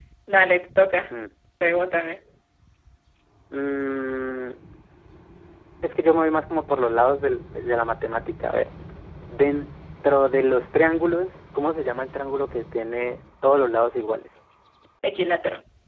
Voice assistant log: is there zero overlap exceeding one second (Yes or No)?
Yes